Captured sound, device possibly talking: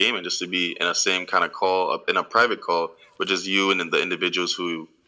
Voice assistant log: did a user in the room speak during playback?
No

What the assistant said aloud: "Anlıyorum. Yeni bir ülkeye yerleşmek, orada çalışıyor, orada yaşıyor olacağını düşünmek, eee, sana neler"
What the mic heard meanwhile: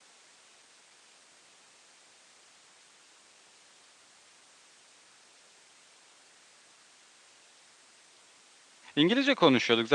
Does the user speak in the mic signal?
Yes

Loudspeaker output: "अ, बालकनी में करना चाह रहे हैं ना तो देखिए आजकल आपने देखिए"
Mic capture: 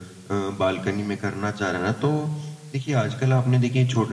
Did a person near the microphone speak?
No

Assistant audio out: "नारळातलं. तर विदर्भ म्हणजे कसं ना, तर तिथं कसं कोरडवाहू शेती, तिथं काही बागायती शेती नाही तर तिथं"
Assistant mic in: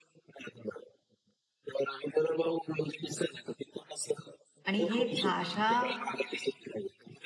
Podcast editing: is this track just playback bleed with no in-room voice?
No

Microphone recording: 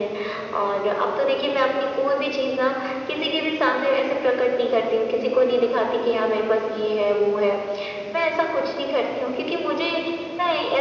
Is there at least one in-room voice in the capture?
No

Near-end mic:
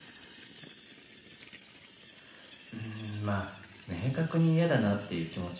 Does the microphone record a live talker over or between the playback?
Yes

